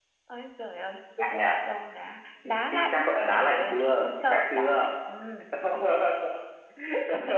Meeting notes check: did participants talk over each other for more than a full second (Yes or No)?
Yes